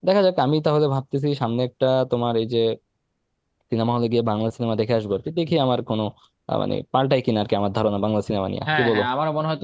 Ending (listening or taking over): taking over